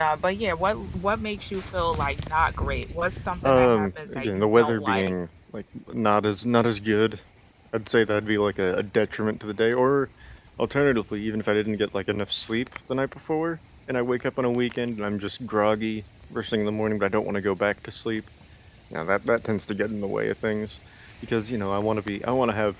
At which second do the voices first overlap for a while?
3.4 s

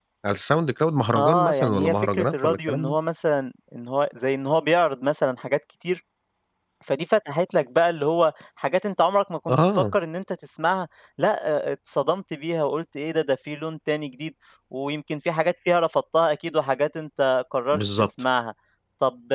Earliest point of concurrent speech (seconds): 1.2 s

